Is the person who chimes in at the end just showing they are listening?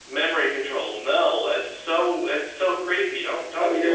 No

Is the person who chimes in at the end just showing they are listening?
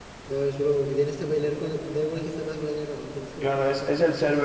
No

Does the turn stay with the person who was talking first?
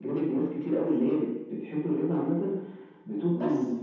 Yes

